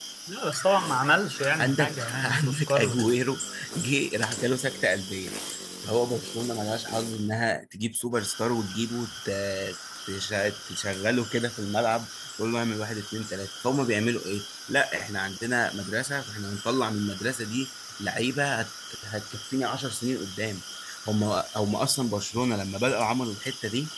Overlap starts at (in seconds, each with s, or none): 1.6 s